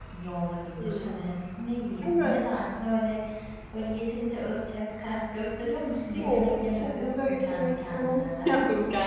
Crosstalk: present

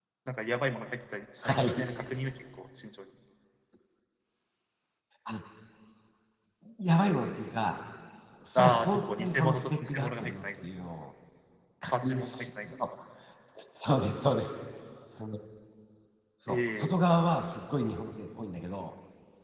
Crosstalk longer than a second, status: present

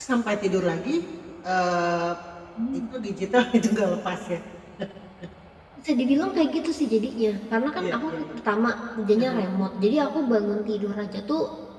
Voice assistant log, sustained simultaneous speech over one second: none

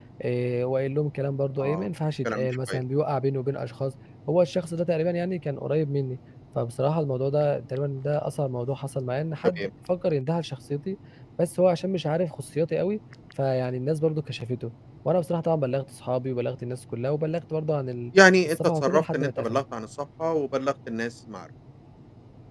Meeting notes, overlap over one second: present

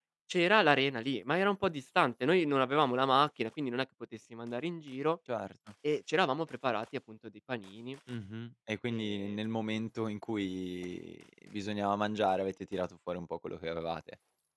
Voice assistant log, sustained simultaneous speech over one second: none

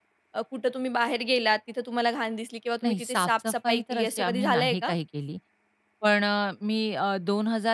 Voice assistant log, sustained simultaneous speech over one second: present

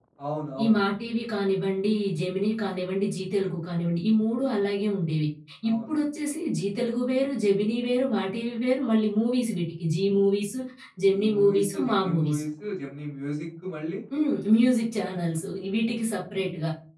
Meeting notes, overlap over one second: present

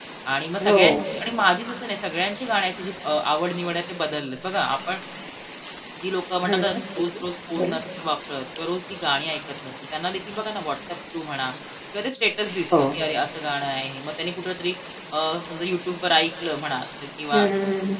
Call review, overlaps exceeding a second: none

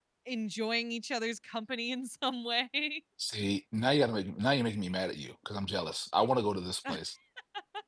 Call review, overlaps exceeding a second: none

